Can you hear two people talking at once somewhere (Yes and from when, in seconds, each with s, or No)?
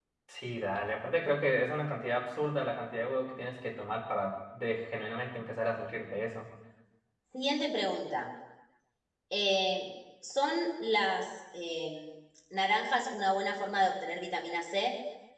No